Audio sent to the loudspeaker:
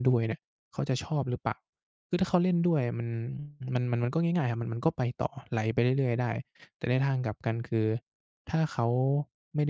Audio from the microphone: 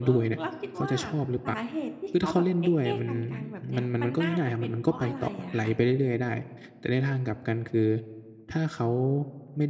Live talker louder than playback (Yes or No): No